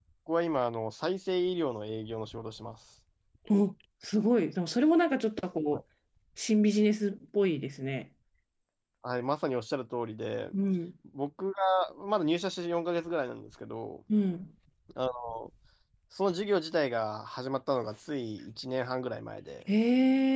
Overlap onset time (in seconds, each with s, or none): none